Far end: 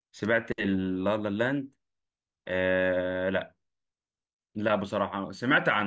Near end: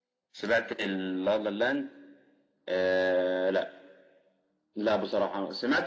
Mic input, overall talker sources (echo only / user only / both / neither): echo only